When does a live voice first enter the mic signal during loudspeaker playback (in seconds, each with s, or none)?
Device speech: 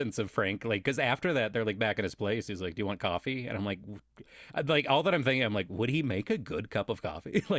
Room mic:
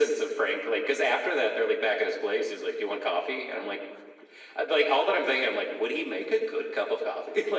none